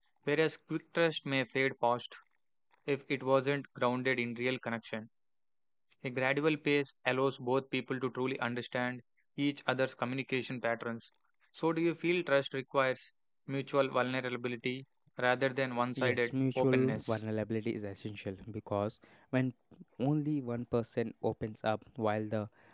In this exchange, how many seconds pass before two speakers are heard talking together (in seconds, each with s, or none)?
16.0 s